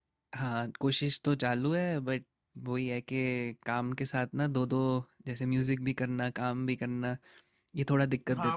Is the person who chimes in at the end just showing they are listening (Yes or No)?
No